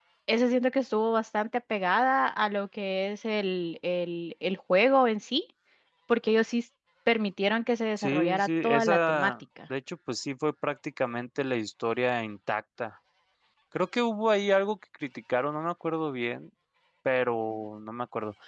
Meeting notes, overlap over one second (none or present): present